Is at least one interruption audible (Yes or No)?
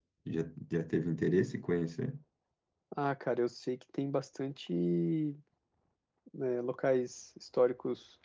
No